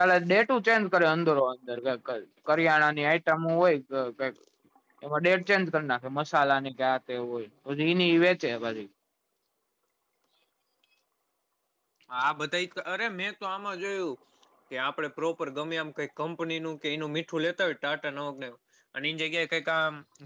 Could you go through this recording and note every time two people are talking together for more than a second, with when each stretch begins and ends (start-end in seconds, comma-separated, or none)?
none